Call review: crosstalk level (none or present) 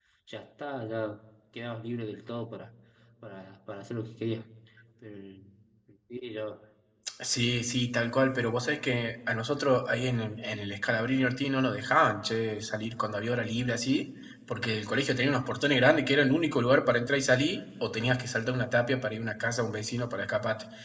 none